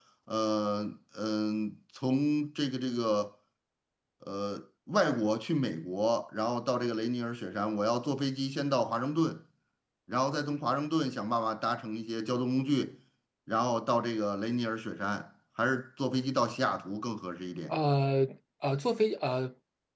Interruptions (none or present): none